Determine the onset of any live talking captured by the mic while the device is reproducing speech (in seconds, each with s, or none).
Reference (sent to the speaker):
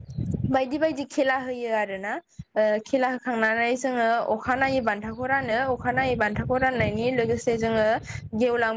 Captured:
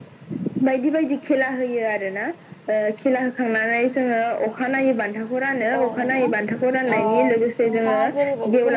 5.8 s